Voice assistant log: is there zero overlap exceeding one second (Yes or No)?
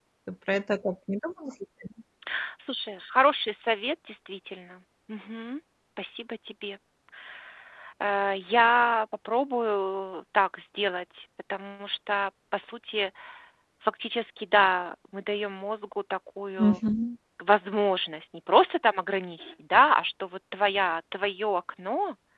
Yes